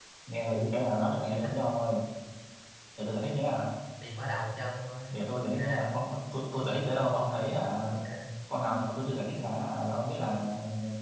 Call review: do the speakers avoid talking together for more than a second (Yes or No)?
Yes